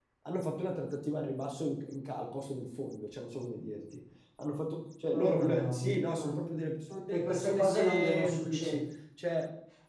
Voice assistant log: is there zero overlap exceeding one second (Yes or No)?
No